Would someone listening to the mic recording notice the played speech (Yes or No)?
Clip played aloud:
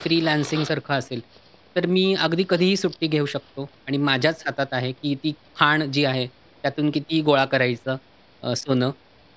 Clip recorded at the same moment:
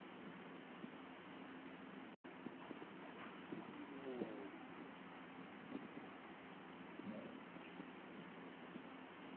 No